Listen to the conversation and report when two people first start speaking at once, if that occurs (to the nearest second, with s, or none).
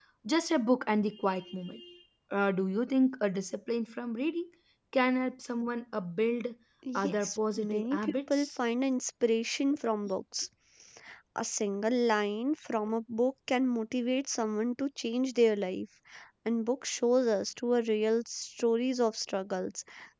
7 s